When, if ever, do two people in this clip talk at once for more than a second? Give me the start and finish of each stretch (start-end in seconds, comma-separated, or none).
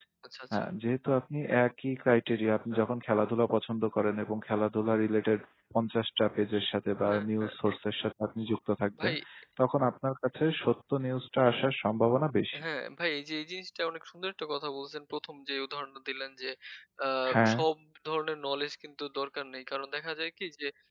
none